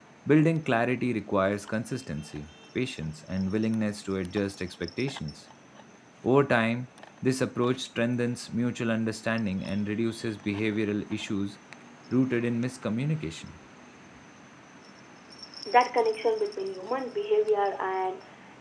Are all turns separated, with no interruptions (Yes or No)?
Yes